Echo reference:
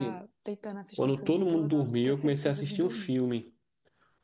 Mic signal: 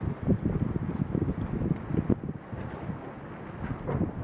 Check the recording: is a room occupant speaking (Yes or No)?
No